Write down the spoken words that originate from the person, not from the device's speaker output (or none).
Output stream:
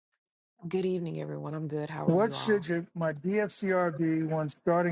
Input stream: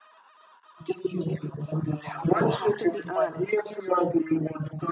But I have to be honest,